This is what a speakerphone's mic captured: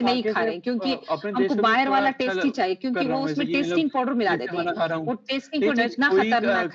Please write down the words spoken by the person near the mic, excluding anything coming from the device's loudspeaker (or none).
none